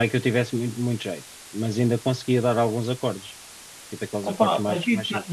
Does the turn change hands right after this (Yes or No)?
Yes